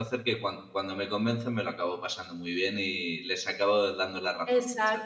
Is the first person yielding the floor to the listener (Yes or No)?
Yes